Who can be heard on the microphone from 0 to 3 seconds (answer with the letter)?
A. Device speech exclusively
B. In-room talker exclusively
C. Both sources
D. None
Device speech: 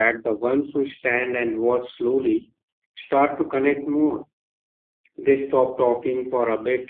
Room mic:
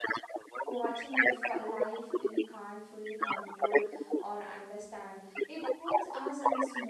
C